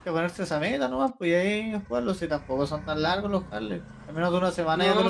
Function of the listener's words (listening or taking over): taking over